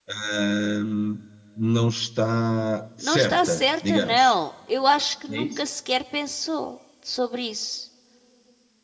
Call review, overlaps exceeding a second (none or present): present